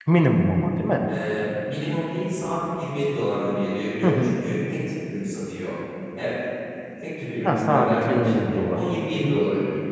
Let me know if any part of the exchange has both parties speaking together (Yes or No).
Yes